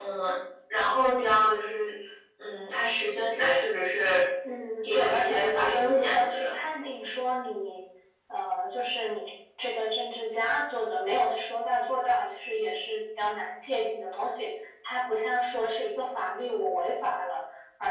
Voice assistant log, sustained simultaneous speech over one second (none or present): present